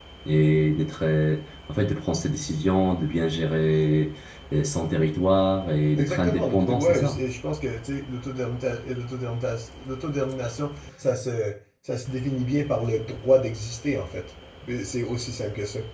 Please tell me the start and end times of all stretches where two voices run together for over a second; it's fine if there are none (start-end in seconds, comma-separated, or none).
6.0-7.2